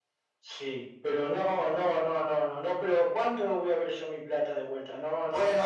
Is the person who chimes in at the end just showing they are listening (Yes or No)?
No